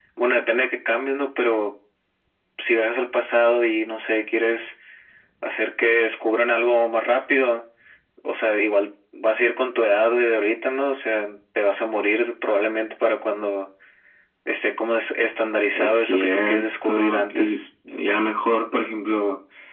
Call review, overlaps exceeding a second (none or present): present